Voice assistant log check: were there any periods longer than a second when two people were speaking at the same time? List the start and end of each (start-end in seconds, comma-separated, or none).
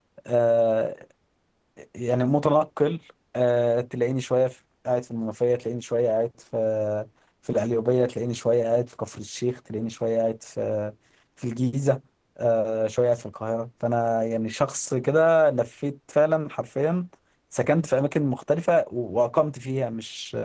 none